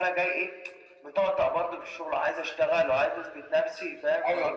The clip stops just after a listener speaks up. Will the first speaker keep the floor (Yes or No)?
No